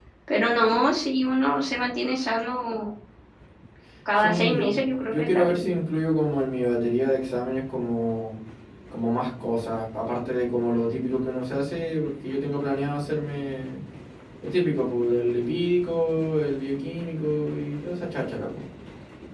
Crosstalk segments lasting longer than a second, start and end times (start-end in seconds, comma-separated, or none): 4.2-5.7